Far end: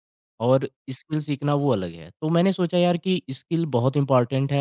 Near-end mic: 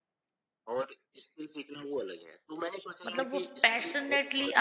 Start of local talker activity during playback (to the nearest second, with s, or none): 3 s